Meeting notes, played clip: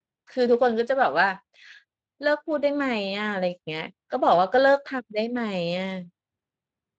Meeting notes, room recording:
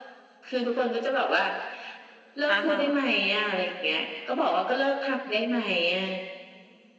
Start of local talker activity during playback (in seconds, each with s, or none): 2.5 s